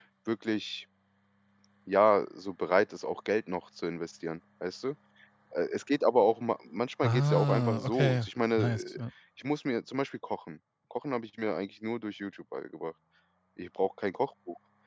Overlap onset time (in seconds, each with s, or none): 7.0 s